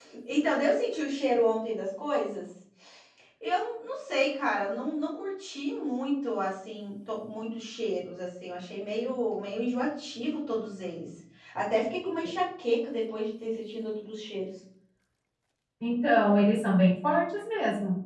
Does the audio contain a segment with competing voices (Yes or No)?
No